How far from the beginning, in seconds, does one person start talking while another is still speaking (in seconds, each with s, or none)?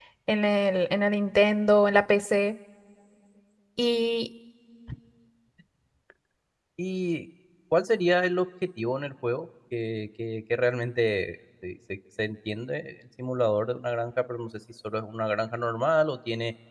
none